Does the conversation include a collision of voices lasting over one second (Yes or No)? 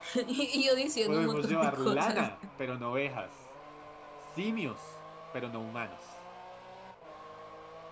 Yes